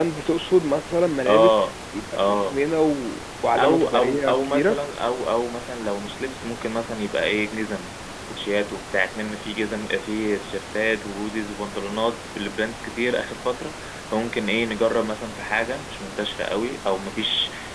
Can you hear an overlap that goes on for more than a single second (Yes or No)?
Yes